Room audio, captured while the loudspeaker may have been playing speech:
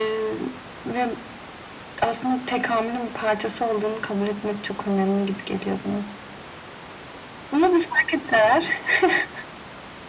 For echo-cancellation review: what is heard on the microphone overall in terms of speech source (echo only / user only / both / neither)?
echo only